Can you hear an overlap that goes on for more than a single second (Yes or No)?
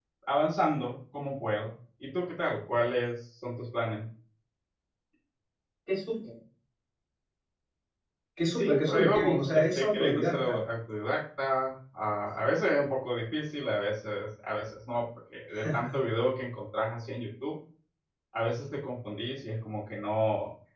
Yes